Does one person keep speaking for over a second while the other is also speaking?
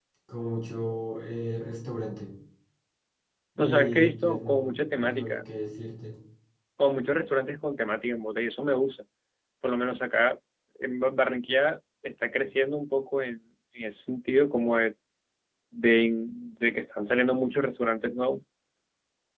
Yes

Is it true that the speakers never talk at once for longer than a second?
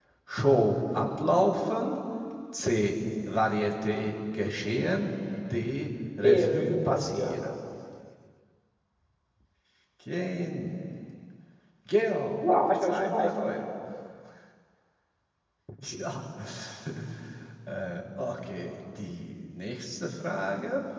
No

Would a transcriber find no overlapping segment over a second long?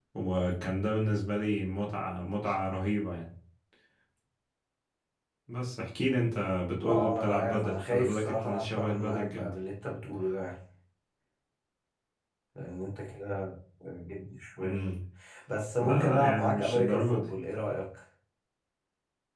No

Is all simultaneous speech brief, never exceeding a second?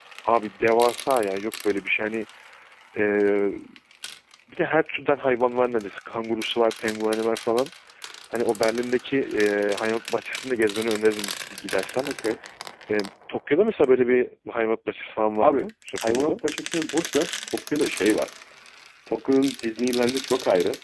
Yes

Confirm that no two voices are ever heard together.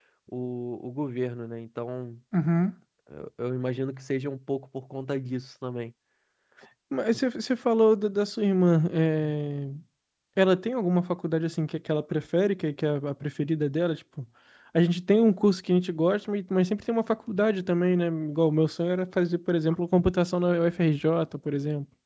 Yes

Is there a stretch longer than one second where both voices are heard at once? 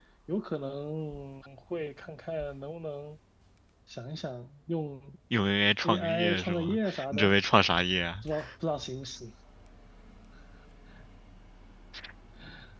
Yes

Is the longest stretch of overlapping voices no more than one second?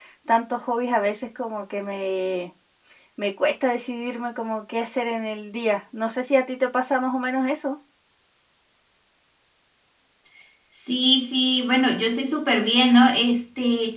Yes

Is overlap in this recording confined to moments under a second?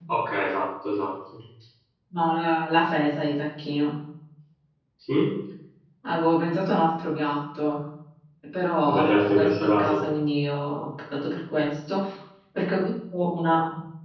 No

